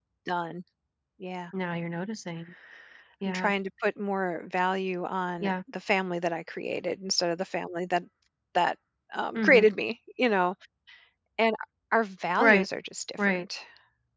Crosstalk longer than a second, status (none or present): none